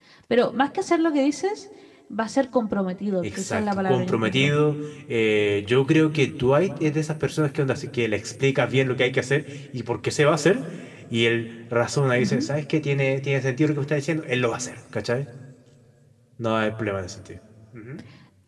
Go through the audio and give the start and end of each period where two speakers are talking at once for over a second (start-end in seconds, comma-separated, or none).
3.2-4.5